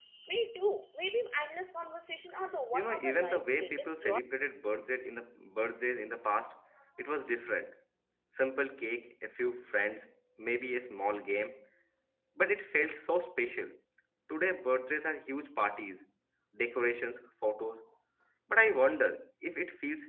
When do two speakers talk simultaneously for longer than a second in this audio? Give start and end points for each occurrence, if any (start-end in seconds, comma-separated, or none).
2.7-4.2